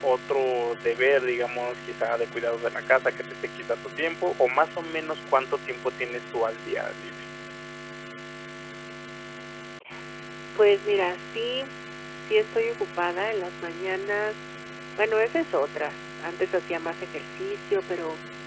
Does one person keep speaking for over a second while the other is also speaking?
No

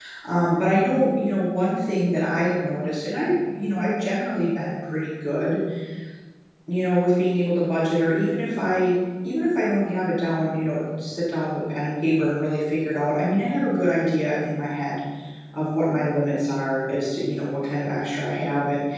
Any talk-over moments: No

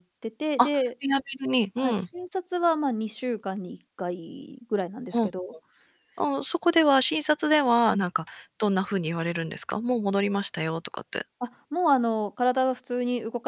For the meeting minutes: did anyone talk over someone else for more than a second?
No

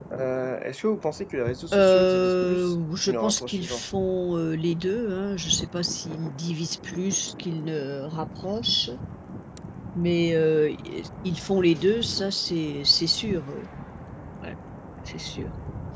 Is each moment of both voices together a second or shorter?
No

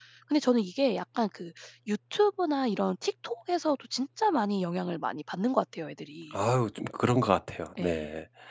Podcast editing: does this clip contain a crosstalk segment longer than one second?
No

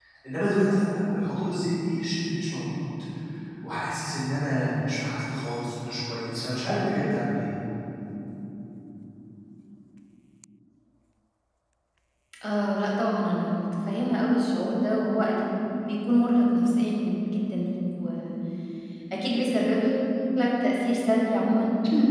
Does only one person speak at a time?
Yes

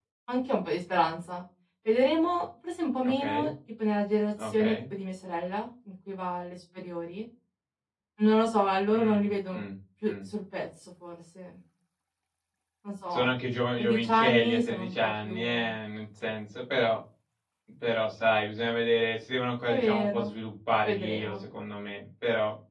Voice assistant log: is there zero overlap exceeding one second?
No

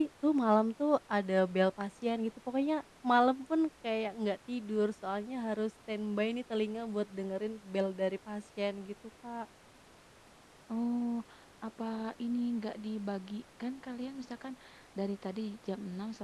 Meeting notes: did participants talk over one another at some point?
No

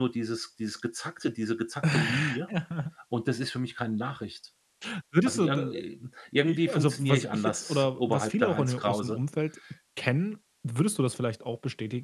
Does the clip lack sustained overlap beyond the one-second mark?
No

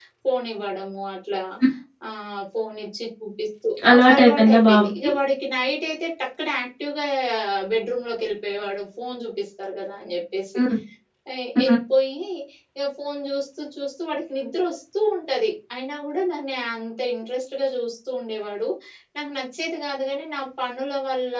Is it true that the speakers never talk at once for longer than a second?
No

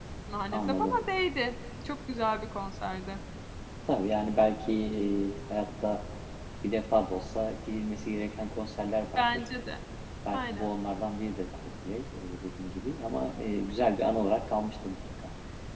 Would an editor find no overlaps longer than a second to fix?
Yes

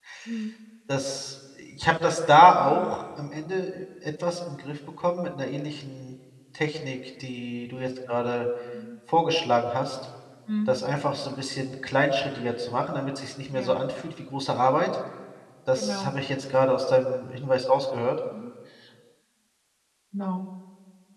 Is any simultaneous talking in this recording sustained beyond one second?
No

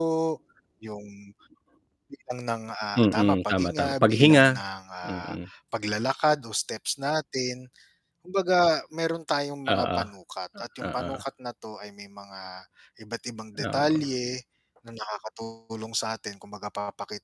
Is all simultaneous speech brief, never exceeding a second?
No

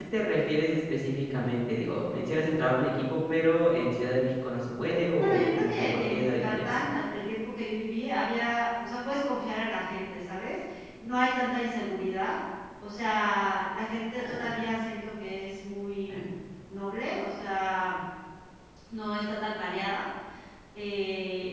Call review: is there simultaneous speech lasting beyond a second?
Yes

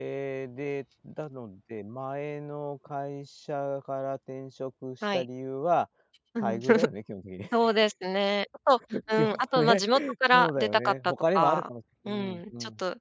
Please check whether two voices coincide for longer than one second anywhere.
Yes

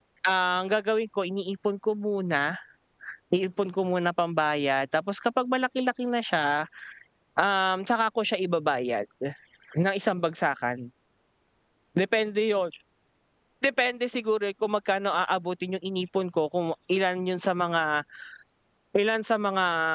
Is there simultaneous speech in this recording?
No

